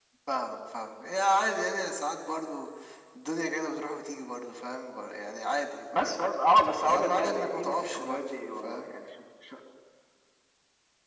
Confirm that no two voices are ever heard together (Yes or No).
No